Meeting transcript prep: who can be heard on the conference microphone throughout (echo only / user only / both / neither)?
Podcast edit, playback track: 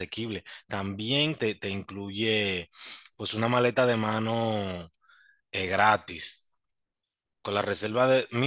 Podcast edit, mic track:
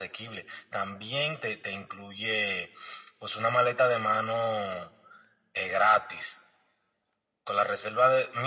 echo only